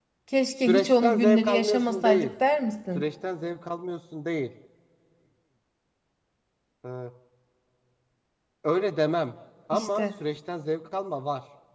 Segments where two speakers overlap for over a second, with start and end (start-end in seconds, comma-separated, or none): 0.7-2.3